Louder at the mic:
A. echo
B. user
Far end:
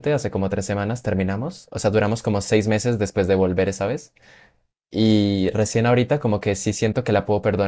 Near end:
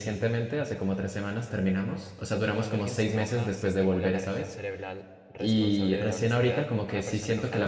A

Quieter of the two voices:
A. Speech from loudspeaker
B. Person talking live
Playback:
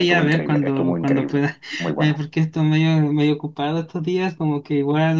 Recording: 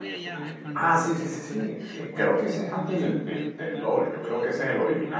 A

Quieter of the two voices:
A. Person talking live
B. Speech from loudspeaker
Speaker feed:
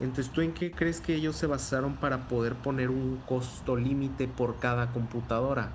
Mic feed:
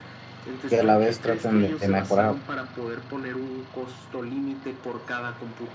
B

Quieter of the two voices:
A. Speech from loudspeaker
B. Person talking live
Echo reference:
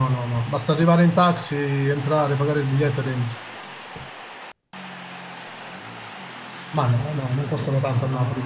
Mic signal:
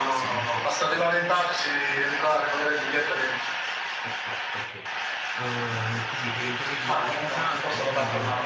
B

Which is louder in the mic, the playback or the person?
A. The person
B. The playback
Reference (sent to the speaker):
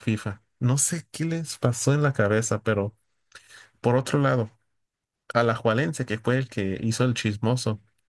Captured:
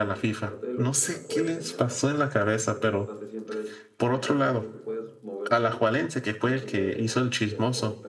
B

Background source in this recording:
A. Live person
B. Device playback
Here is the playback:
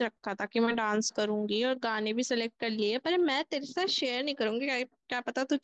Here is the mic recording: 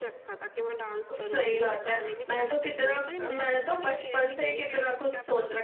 B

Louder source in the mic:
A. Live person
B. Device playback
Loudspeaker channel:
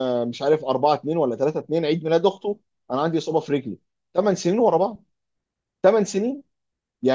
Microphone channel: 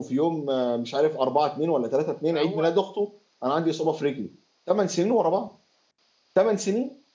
B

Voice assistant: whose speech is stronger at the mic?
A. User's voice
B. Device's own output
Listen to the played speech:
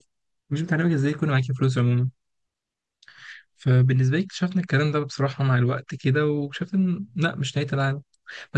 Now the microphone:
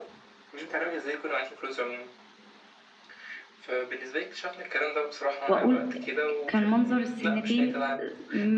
A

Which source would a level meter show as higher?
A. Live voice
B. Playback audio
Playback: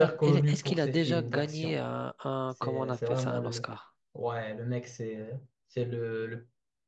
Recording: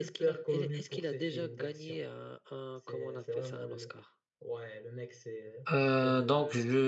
A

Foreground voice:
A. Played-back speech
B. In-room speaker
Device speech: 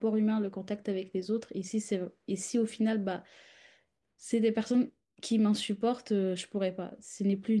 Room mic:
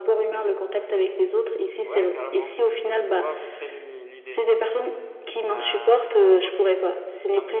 A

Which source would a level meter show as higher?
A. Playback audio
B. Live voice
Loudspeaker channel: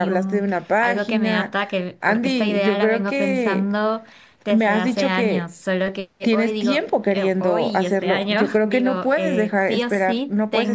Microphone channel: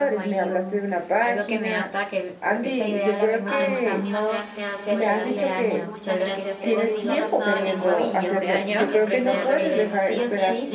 A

